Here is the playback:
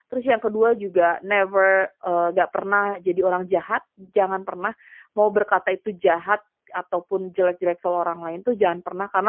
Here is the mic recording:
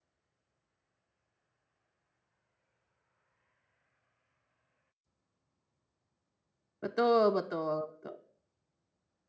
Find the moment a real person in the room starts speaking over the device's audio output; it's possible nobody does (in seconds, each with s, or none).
6.8 s